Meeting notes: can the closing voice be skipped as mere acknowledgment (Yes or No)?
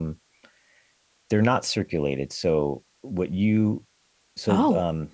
Yes